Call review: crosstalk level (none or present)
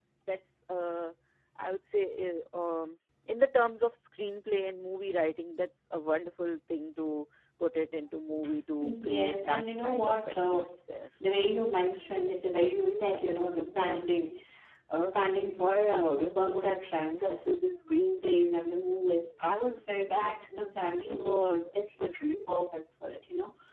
present